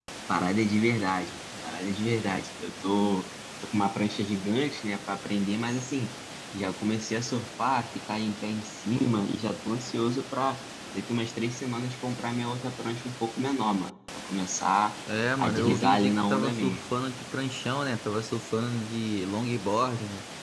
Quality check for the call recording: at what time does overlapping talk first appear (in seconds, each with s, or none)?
15.4 s